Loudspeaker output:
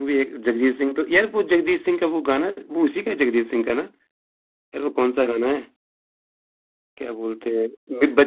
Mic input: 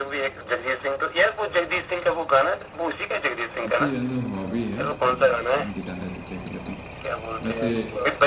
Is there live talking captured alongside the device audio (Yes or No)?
Yes